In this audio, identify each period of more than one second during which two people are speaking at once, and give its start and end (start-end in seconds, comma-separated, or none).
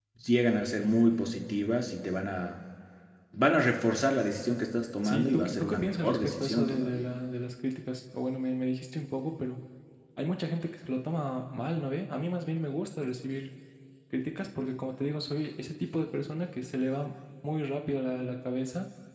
5.0-7.0